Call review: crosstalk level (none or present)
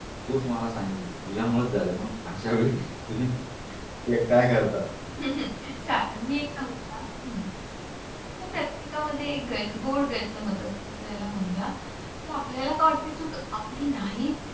none